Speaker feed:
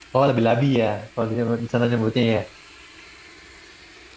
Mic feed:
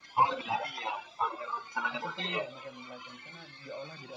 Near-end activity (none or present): present